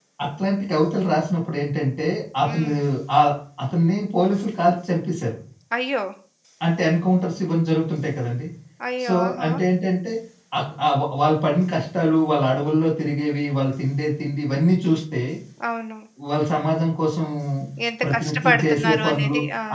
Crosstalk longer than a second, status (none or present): present